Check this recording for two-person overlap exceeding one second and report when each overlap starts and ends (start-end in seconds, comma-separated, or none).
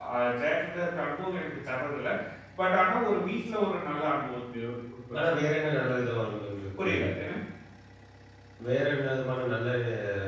none